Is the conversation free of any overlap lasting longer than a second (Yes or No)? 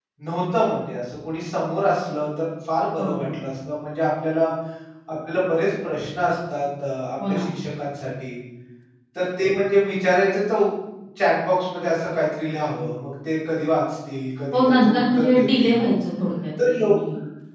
No